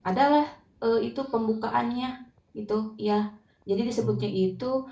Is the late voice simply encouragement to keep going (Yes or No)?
Yes